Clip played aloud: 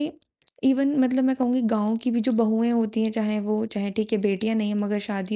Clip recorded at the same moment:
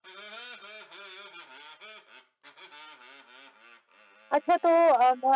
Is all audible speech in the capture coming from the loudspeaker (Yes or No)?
No